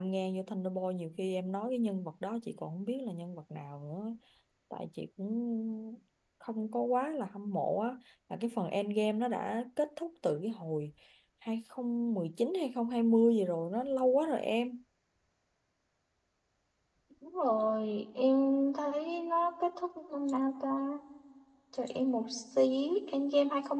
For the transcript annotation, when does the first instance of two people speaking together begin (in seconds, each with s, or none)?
none